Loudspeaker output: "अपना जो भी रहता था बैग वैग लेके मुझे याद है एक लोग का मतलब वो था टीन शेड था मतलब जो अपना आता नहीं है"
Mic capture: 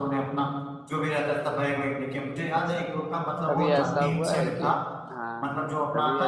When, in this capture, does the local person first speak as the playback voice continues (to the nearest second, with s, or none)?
3 s